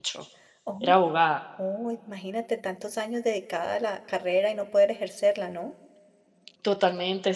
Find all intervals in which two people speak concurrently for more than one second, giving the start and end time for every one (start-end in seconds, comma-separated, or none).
none